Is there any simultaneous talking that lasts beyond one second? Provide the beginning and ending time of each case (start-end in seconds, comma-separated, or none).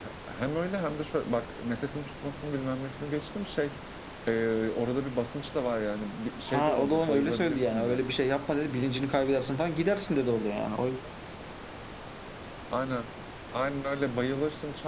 6.5-8.0